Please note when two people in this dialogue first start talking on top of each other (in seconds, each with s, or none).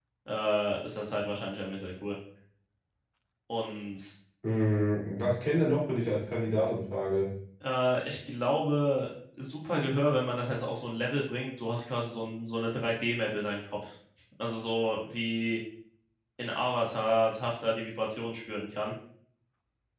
none